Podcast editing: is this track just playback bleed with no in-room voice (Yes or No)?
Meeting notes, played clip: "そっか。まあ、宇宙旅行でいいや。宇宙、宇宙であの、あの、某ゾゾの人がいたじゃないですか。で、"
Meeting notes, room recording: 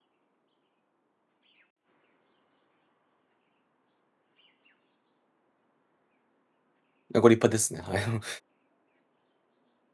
No